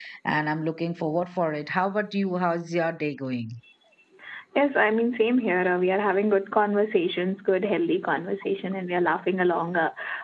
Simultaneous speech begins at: none

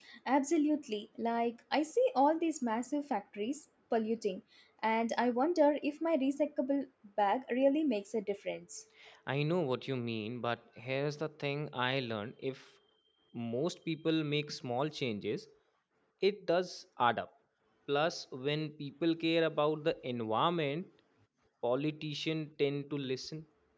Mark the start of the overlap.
none

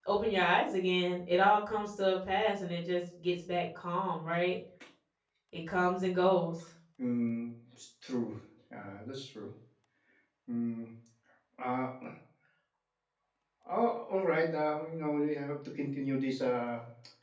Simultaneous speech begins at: none

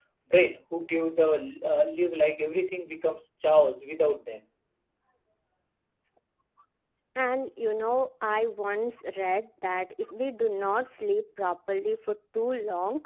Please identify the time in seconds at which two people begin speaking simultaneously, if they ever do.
none

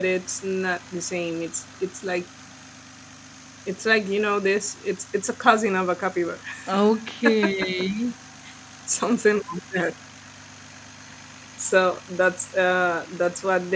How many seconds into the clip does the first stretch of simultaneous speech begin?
none

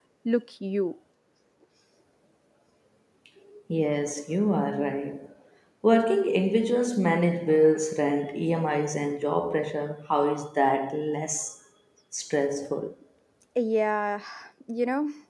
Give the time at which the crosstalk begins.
none

